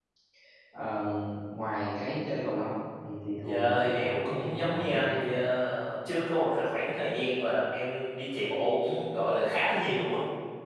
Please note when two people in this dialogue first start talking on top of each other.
3.4 s

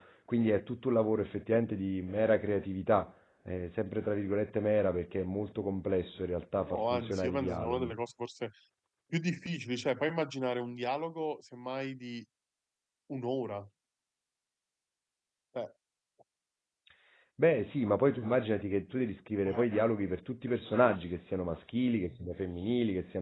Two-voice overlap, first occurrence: 6.7 s

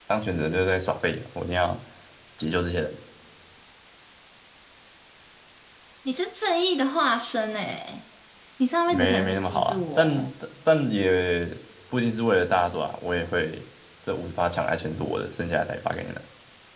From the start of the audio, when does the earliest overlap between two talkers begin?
8.9 s

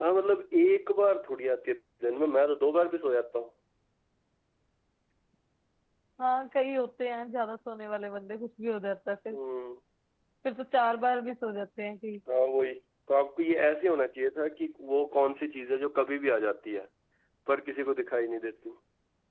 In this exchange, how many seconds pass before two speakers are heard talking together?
none

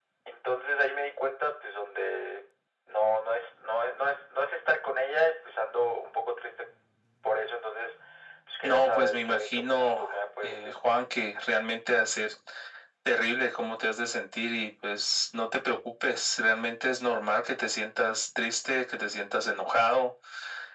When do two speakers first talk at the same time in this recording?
8.6 s

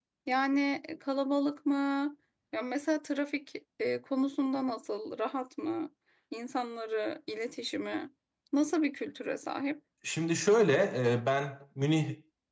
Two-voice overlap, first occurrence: none

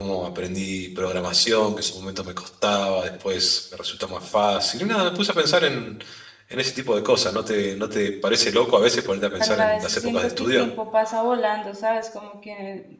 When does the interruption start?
9.4 s

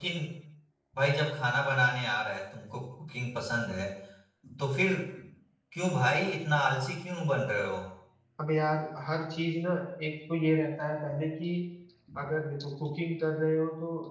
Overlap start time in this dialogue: none

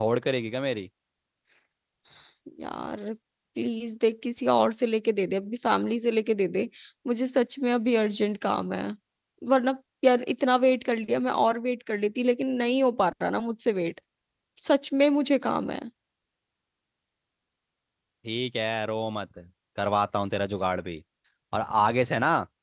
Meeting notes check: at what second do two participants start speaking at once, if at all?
none

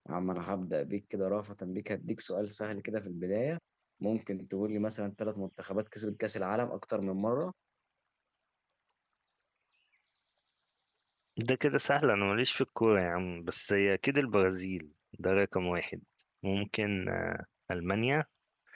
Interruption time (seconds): none

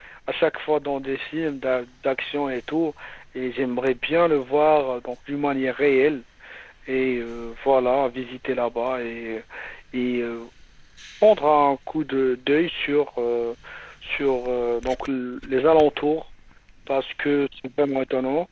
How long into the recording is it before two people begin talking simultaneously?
none

